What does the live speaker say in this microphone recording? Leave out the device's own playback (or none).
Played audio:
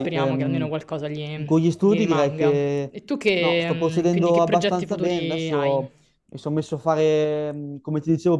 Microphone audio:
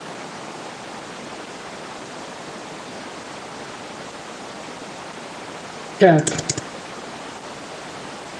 certo.